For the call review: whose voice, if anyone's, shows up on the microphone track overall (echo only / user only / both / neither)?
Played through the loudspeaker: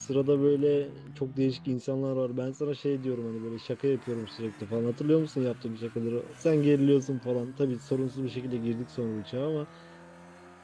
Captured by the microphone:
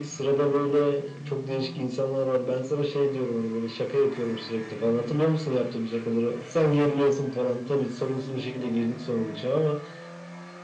echo only